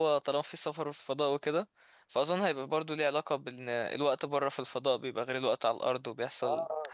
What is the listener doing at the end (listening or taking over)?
taking over